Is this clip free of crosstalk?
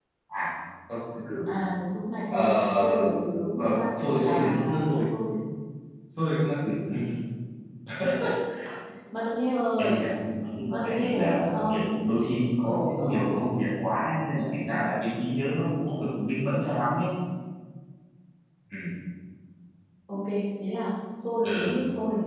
No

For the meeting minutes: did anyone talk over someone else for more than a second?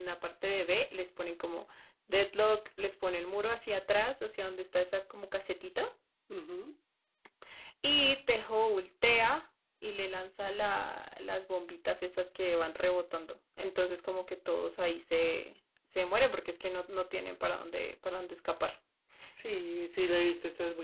No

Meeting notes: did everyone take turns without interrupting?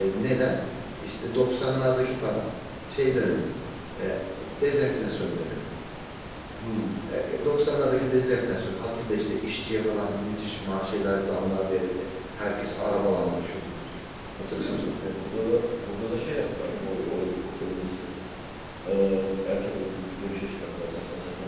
Yes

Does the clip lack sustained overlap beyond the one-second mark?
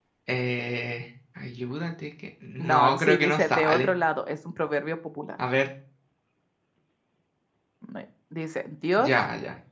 No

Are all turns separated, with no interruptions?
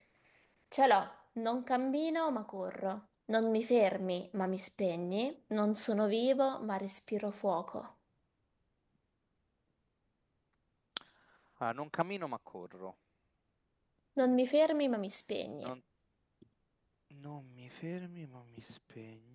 Yes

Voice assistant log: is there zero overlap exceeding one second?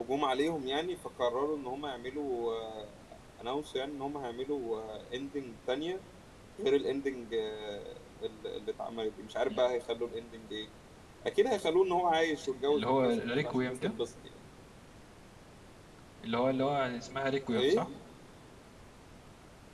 No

